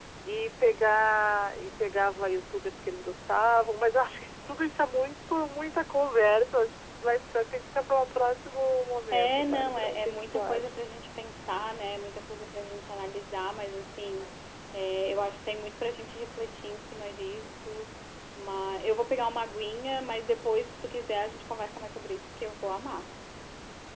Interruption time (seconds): 9.1 s

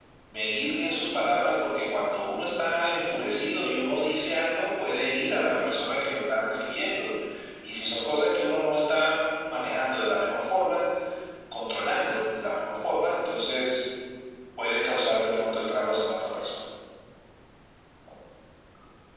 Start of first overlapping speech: none

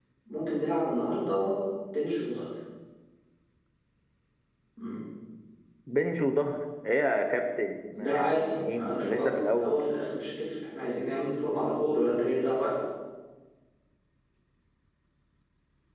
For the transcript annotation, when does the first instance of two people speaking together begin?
8.0 s

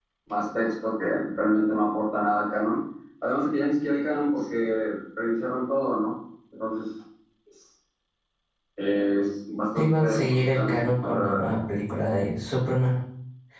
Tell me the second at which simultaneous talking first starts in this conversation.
9.8 s

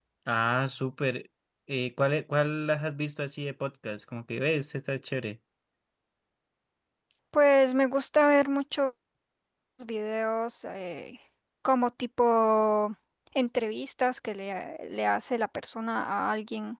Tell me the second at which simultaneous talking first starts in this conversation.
none

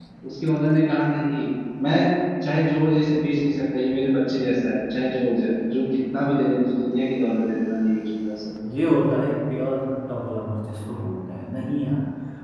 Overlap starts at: none

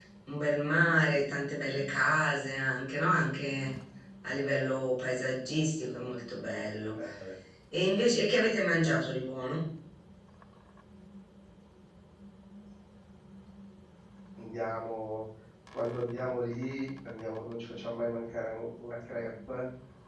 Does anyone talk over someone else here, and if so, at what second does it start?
none

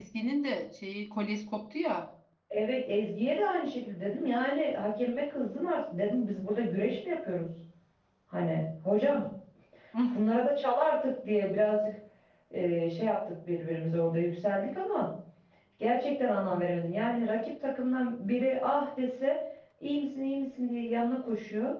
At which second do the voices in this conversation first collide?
none

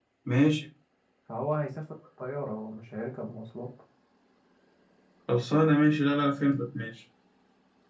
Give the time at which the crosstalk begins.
none

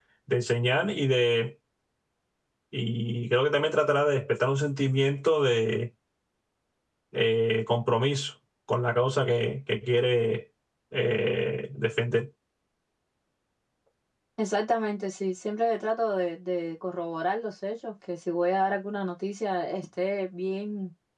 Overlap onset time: none

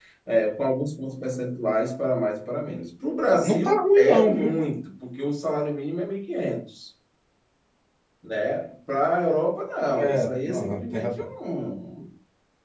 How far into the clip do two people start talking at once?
3.3 s

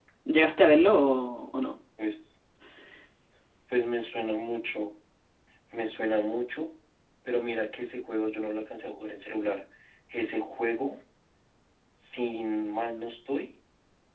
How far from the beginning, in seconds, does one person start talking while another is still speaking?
none

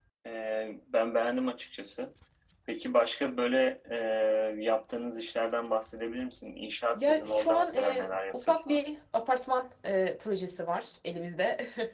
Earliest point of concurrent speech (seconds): 6.9 s

